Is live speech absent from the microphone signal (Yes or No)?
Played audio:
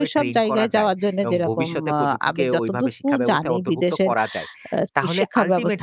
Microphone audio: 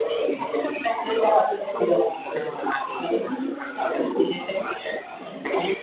Yes